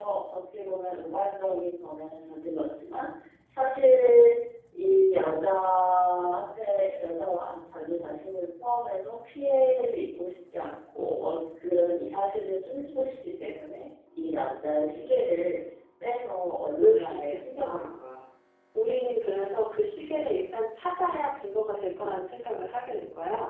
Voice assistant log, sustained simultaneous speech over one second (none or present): present